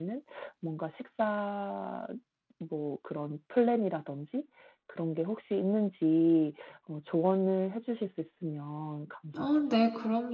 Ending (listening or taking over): taking over